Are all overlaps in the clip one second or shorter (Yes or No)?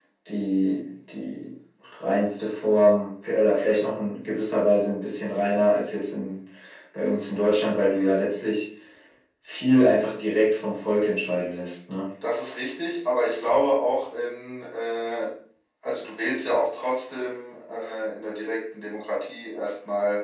Yes